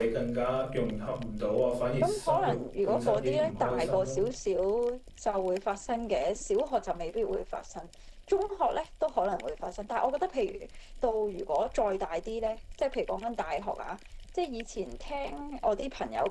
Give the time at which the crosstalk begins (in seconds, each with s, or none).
2.0 s